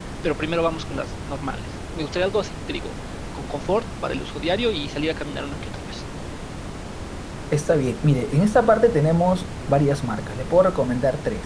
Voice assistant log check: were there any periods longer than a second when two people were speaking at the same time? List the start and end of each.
none

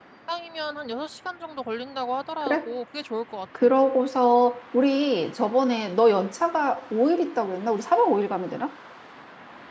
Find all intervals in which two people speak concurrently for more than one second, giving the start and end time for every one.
none

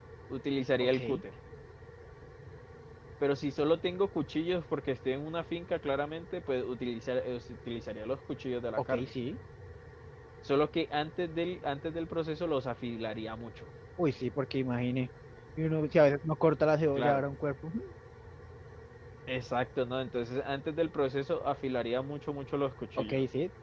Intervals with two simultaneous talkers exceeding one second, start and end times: none

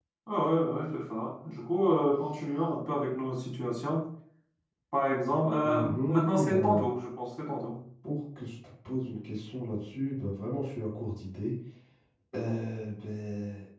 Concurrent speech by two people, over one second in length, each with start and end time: 5.6-6.8

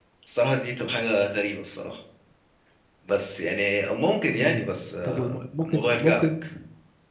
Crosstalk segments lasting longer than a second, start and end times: 5.0-6.3

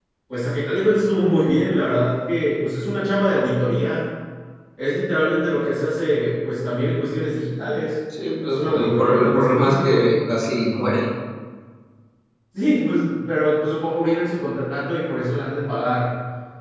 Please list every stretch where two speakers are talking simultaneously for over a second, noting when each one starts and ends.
8.5-10.1

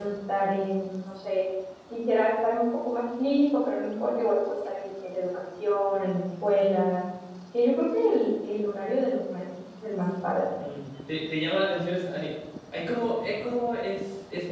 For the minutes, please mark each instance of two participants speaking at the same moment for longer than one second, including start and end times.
none

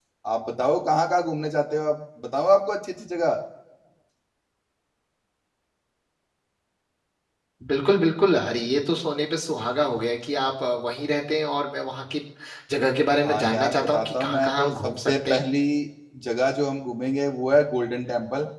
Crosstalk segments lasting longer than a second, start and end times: 13.2-15.4

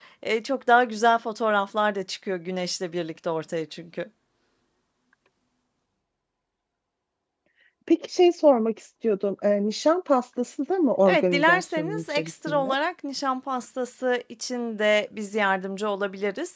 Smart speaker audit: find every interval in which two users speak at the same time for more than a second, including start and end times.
11.1-12.7

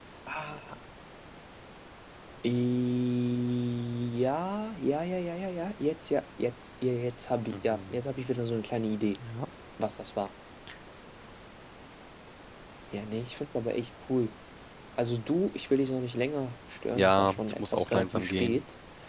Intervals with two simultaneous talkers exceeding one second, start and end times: 17.0-18.6

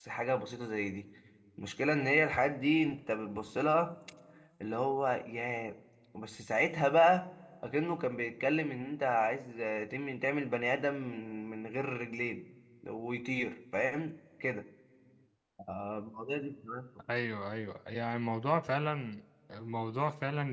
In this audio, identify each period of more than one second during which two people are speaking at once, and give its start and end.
none

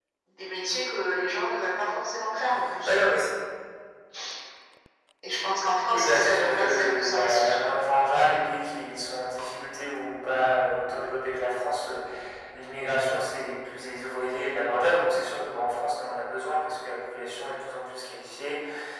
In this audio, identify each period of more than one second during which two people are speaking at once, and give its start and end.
5.9-7.5

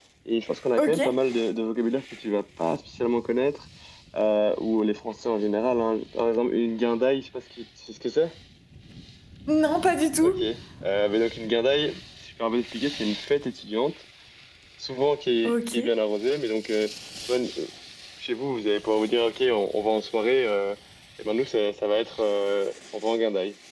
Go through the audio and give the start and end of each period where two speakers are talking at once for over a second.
none

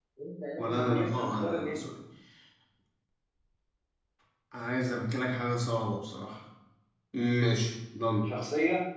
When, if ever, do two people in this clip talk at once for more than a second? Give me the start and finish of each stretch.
0.6-1.9

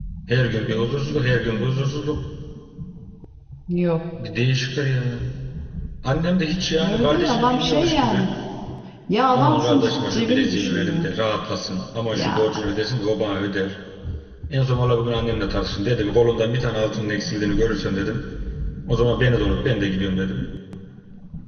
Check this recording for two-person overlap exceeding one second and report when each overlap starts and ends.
6.8-8.3, 9.3-11.0

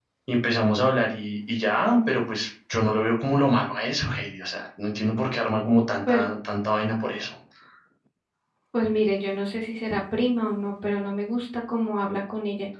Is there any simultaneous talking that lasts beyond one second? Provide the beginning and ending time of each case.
none

